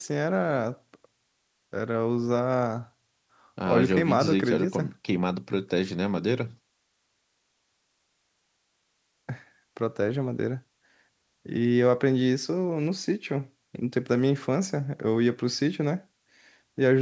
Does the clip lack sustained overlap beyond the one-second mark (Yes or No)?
No